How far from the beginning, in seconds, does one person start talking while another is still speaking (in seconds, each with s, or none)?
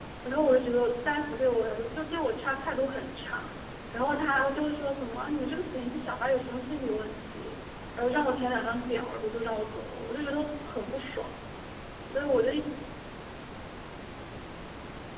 none